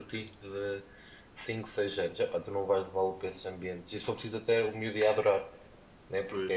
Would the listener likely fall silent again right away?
Yes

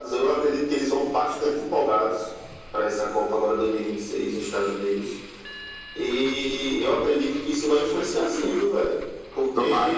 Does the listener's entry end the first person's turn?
No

